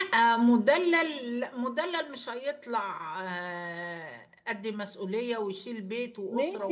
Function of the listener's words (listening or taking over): taking over